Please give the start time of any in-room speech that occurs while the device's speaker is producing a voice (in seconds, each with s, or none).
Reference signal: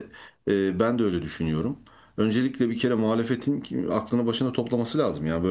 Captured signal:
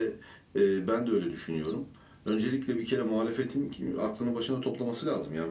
none